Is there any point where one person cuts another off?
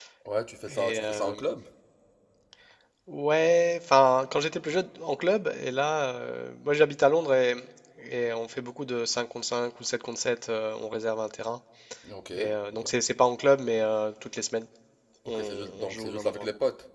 Yes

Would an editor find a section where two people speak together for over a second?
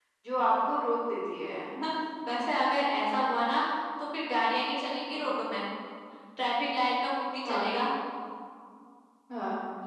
No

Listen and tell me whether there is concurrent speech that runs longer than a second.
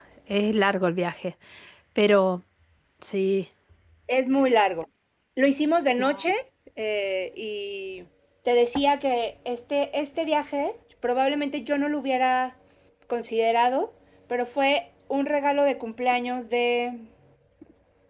No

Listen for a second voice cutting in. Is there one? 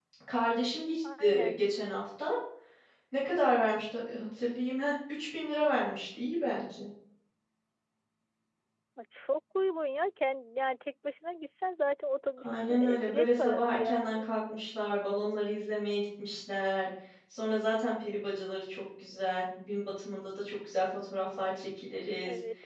Yes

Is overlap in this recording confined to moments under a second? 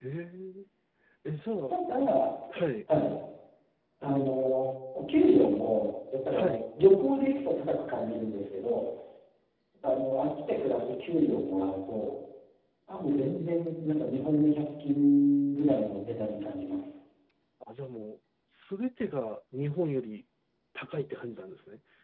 Yes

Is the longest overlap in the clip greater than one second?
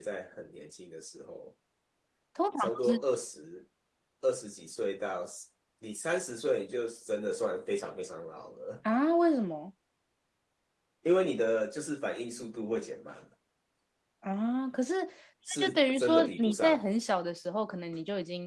Yes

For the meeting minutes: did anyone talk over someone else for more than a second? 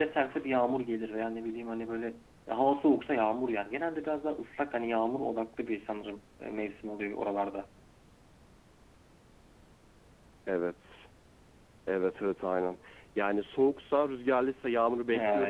No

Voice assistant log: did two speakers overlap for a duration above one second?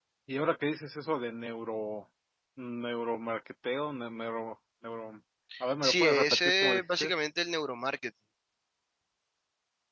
Yes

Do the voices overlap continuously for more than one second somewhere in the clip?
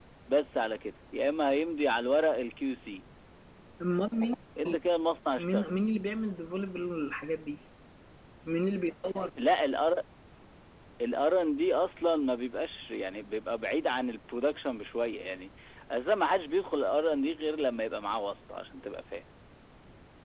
No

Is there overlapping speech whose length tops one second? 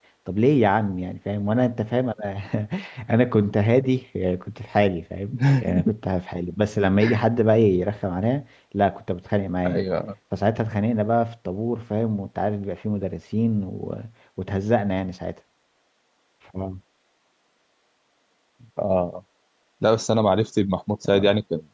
No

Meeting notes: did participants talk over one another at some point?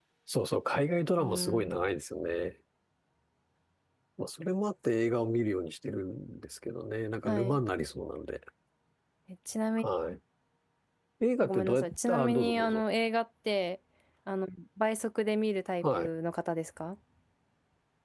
Yes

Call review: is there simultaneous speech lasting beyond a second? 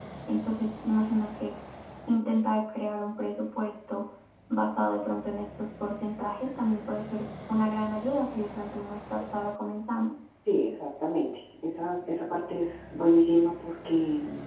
No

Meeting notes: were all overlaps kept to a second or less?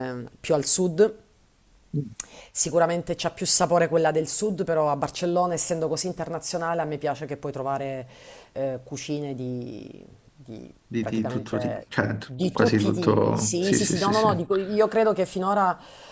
No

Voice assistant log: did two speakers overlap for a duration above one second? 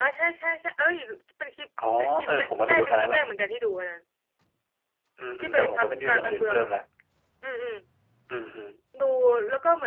Yes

